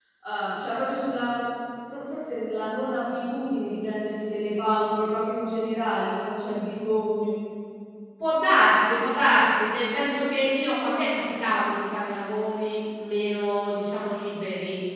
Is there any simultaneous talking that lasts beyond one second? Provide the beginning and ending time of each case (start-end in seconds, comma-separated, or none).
none